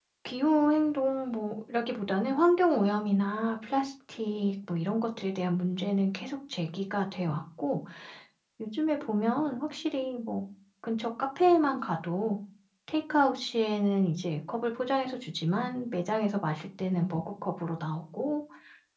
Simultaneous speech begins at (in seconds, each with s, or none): none